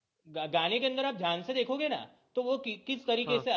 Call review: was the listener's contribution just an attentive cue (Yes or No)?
Yes